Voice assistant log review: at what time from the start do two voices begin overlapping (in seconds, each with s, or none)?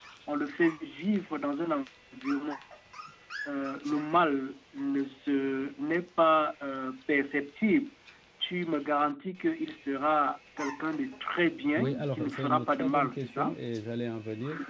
11.8 s